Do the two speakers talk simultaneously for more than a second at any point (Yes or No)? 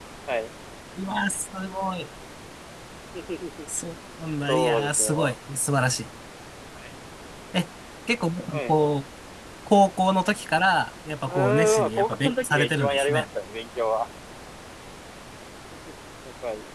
Yes